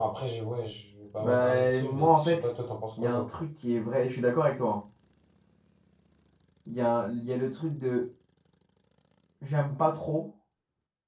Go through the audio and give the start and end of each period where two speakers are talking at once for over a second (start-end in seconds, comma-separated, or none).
1.2-2.5